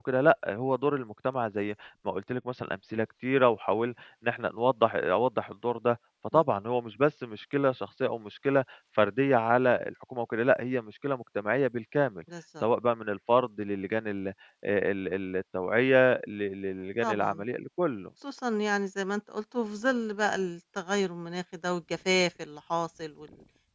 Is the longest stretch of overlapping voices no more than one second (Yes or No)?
Yes